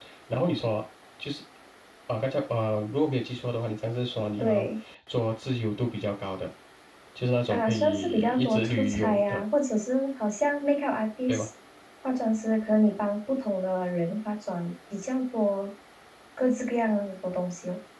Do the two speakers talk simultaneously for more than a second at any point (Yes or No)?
Yes